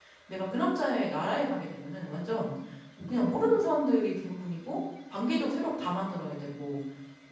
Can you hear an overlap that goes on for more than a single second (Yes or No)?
No